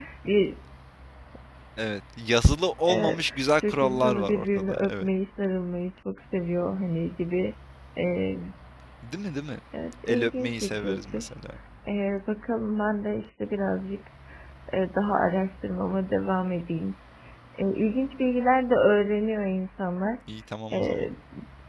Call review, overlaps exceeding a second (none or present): present